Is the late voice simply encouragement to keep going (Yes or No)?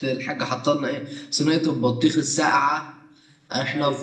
Yes